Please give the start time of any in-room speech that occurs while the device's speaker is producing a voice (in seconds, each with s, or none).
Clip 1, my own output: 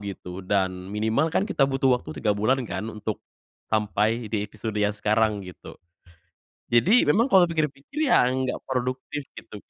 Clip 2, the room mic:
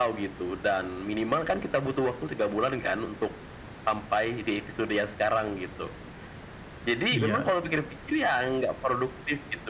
7.1 s